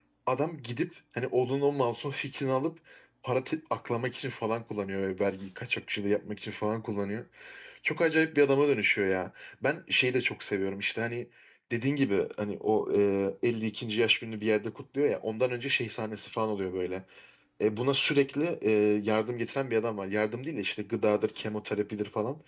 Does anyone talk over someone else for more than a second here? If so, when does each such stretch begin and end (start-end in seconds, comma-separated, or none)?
none